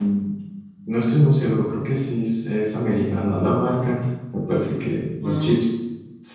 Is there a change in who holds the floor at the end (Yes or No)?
No